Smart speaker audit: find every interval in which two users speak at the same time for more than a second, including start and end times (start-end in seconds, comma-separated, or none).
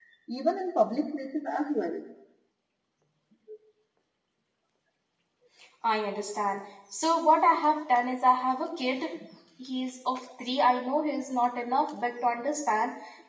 none